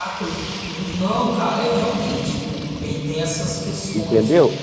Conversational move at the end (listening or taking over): taking over